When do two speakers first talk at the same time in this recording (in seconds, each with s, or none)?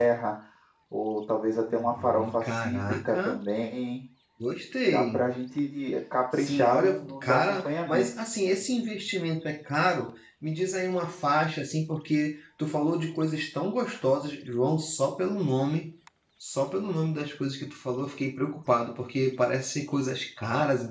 1.7 s